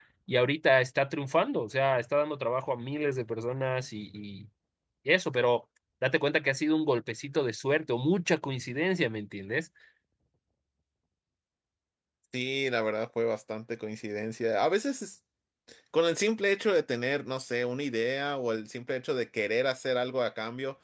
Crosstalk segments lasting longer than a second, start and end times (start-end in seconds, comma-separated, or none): none